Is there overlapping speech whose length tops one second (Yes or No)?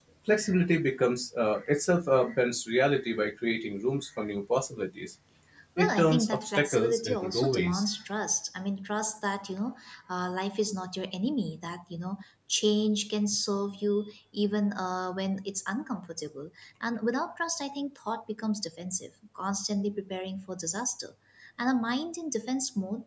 Yes